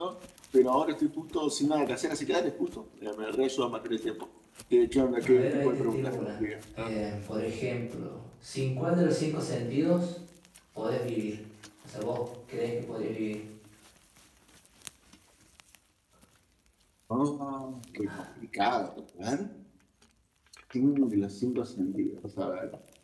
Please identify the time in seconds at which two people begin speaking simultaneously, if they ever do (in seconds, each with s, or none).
5.2 s